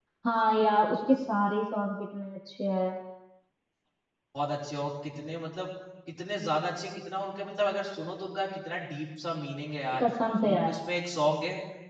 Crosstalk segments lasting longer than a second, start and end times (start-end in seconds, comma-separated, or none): none